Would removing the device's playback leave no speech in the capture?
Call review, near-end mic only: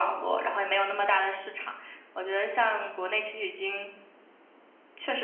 Yes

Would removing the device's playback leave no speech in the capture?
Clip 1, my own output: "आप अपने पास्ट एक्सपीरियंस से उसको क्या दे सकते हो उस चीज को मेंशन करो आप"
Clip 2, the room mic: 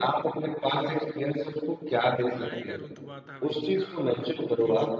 No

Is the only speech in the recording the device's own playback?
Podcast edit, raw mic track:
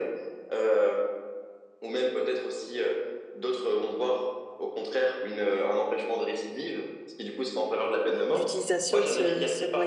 No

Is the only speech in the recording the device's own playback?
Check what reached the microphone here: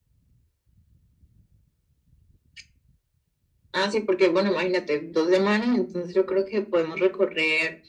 Yes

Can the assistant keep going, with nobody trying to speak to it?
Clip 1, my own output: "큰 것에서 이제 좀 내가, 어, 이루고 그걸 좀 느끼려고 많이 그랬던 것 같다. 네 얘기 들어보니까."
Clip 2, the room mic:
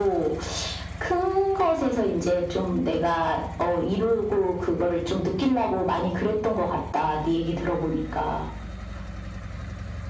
Yes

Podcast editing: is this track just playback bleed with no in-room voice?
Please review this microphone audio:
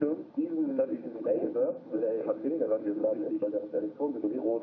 Yes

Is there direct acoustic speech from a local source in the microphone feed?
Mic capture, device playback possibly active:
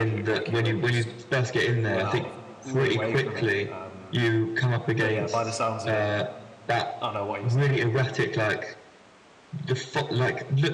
Yes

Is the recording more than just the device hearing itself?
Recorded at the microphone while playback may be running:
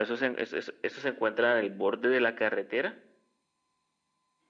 No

